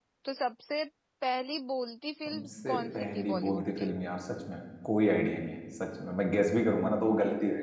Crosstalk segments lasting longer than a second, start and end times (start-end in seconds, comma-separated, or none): 2.3-3.9